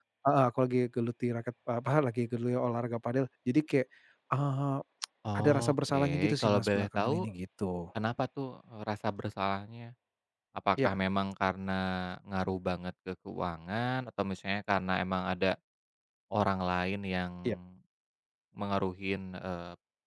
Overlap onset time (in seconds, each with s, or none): 5.4 s